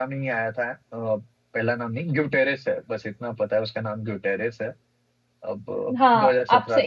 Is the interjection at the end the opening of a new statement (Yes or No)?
Yes